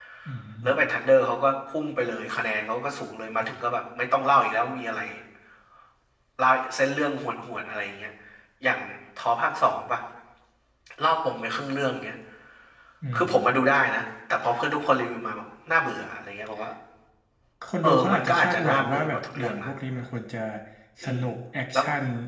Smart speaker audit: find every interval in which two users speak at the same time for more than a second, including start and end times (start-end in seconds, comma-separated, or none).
17.8-19.7